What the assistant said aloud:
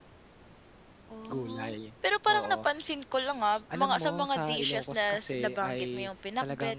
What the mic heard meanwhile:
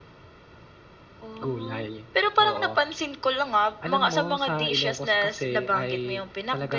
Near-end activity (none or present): none